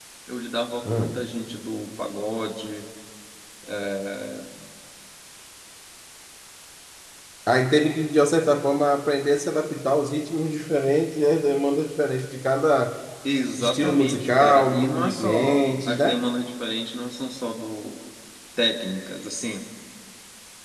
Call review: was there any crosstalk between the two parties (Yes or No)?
Yes